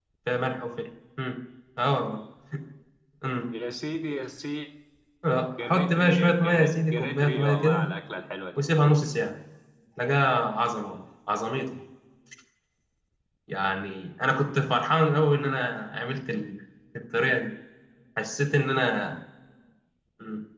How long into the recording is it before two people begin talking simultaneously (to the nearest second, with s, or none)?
6 s